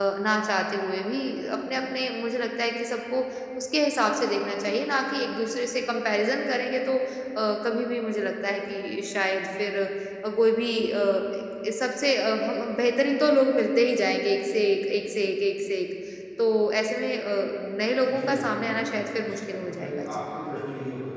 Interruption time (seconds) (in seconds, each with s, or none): 18.1 s